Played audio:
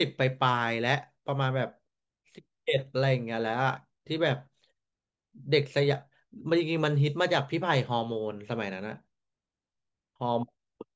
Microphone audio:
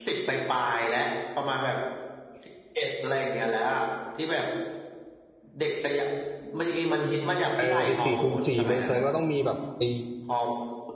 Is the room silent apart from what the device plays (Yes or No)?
No